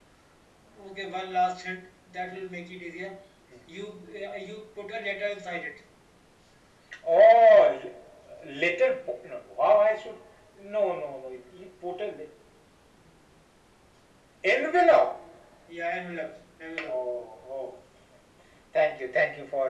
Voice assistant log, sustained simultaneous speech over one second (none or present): none